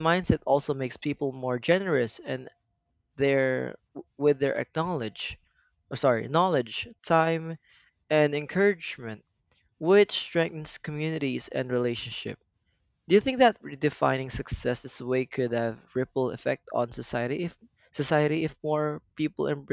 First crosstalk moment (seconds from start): none

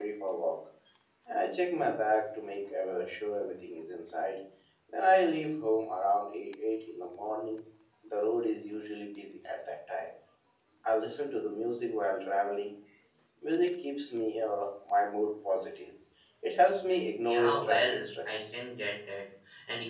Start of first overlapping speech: 17.2 s

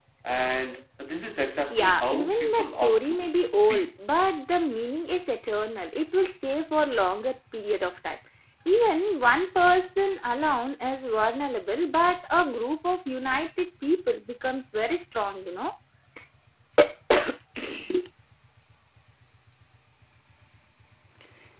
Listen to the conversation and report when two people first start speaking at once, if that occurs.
1.7 s

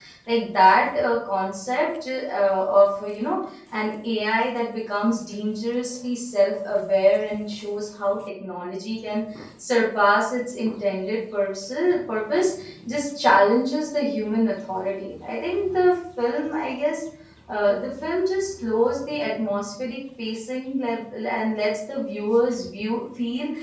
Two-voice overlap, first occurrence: none

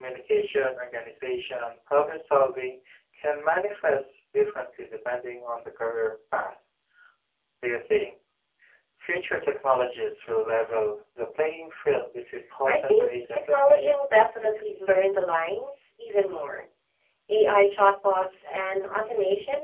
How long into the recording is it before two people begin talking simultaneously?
12.7 s

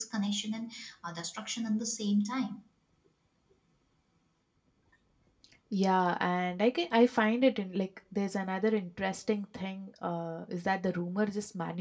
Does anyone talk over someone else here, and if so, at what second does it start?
none

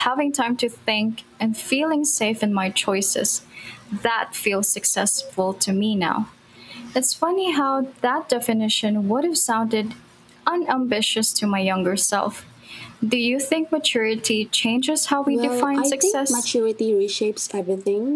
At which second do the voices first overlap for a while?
15.3 s

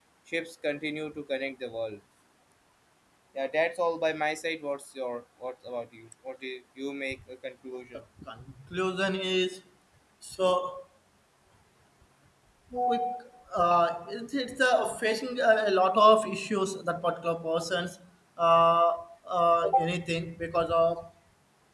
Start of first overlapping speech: none

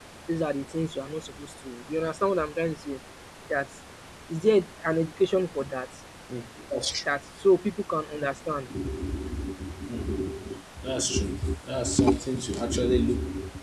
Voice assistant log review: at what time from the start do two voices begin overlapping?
none

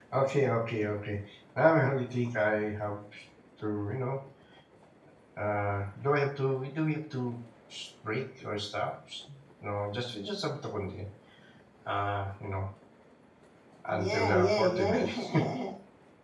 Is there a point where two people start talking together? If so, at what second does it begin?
13.9 s

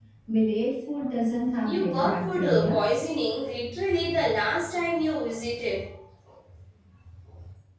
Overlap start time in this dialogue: 1.6 s

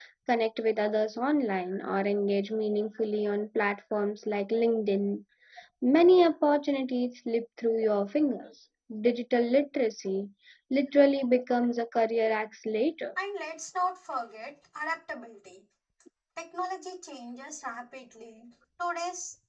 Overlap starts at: none

